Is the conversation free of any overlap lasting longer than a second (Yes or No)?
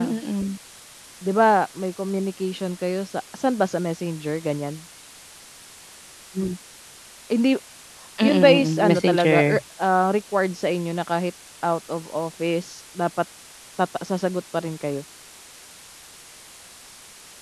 No